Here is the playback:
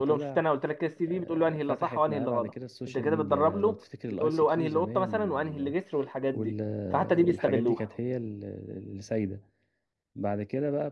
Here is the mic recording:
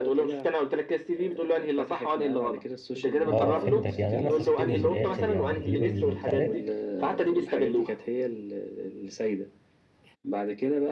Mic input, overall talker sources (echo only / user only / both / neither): both